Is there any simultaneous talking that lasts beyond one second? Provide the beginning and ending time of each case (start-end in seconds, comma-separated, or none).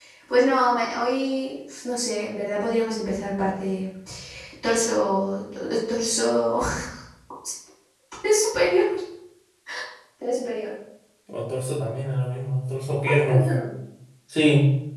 none